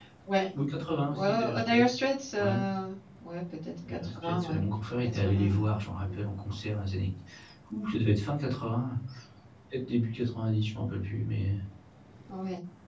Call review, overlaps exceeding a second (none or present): present